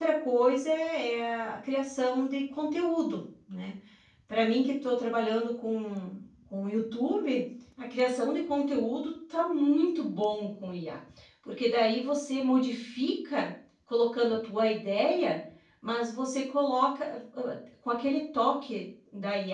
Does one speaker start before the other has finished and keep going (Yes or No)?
No